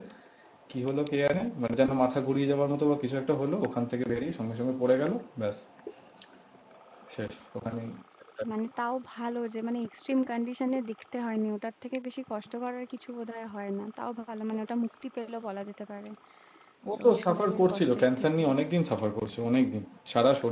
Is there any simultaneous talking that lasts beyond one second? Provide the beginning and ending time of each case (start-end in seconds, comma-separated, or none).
17.1-18.4